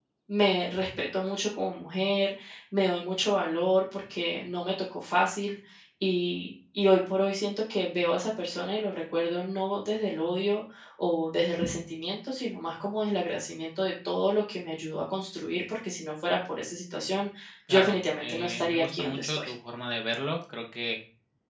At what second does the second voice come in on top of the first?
17.7 s

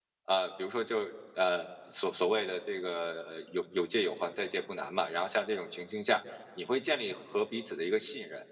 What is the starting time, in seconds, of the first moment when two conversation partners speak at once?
none

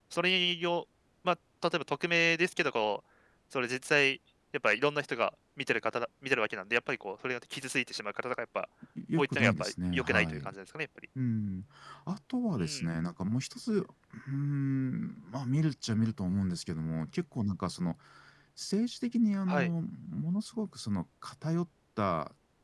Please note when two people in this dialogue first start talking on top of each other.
9.2 s

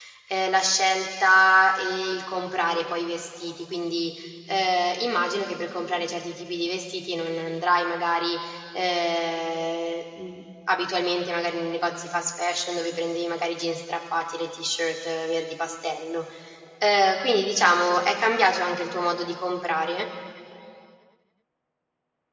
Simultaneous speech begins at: none

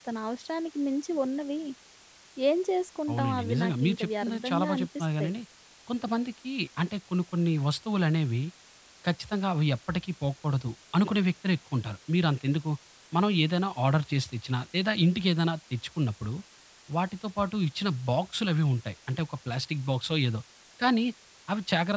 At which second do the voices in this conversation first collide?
3.1 s

